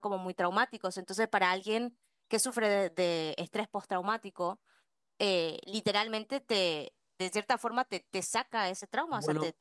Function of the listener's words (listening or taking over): taking over